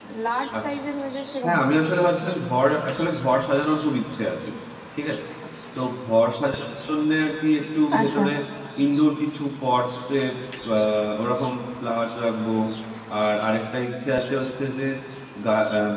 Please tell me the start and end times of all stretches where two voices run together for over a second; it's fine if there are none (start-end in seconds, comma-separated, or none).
none